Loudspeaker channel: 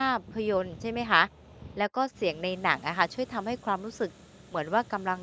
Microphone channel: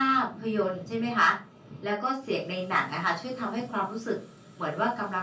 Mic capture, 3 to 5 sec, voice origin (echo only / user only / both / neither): echo only